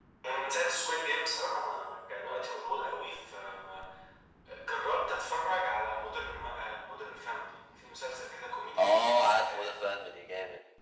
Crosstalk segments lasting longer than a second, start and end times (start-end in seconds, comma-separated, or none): none